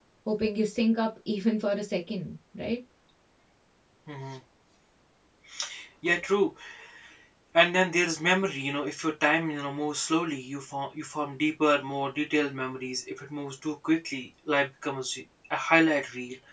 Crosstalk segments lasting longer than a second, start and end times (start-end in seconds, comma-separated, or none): none